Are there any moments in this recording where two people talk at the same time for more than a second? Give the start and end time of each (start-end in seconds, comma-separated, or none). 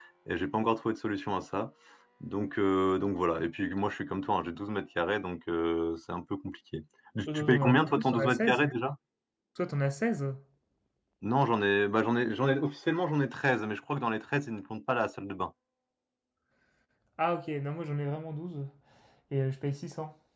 7.3-8.7